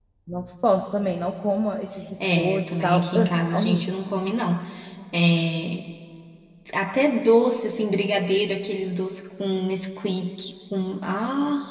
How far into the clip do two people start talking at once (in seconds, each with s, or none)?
2.2 s